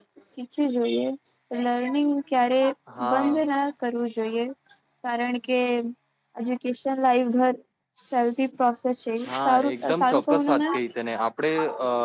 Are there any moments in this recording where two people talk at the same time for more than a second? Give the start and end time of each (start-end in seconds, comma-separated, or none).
9.4-10.7